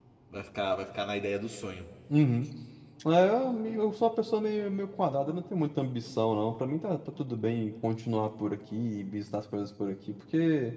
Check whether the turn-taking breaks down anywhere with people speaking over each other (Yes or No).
No